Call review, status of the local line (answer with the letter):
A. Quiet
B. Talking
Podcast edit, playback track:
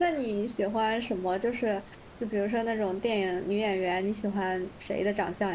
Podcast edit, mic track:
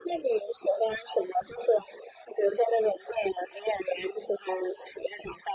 A